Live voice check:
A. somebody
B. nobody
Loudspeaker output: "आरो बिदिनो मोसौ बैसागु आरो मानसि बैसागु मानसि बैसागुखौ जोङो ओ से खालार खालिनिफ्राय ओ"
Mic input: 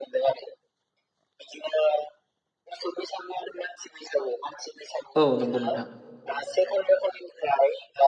A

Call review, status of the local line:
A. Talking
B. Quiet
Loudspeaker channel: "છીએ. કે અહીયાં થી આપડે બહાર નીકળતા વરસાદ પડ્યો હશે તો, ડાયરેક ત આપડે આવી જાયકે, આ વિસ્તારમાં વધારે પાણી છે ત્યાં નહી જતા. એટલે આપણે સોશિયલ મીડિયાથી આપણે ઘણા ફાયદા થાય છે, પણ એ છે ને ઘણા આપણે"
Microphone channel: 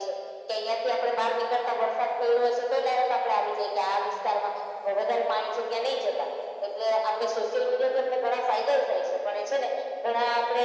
B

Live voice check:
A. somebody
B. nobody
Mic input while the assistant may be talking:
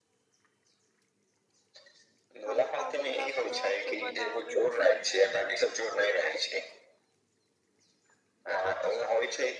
A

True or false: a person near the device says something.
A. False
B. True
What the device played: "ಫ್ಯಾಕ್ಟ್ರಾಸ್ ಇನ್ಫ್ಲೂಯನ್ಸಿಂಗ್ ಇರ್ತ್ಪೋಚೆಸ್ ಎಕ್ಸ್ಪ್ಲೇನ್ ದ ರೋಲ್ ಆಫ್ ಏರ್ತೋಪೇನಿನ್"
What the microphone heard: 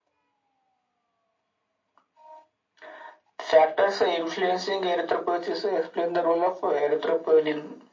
A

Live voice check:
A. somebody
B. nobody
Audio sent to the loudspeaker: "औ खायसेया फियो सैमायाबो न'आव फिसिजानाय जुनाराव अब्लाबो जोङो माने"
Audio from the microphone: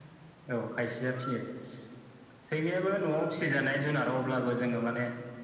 B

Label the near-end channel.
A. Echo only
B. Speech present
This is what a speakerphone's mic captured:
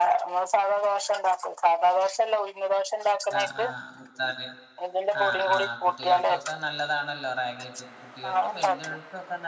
B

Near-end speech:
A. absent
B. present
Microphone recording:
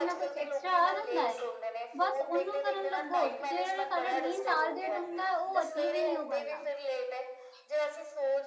B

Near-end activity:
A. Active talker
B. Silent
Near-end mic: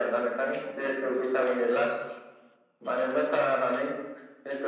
A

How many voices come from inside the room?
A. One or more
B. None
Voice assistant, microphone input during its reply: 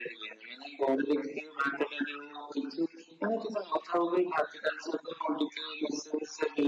B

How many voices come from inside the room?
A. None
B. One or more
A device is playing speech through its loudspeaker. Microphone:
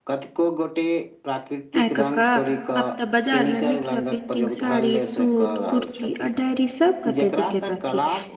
B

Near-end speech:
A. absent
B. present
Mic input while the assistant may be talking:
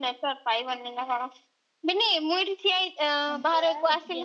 B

